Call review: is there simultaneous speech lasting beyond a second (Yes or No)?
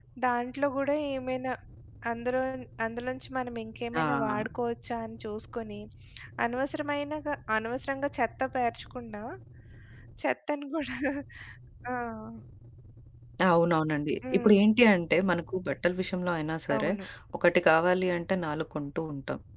No